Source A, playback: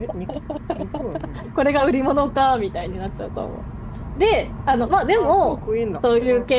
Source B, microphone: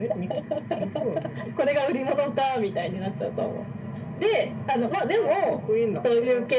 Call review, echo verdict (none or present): present